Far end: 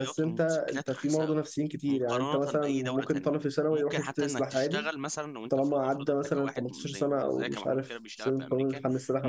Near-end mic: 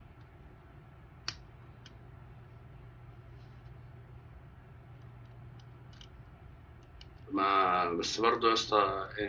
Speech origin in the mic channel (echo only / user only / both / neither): user only